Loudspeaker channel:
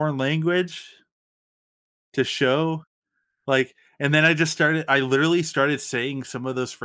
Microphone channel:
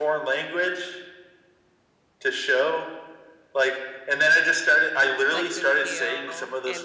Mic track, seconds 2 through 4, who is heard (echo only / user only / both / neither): echo only